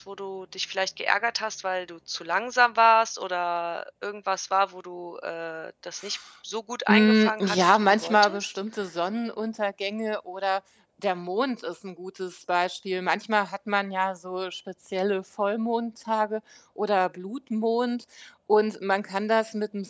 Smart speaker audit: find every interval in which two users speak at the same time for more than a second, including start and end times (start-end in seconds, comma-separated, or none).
6.9-8.5